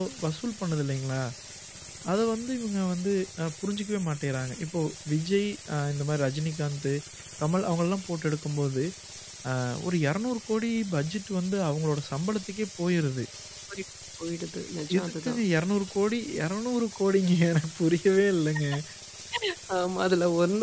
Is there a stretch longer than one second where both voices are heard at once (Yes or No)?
No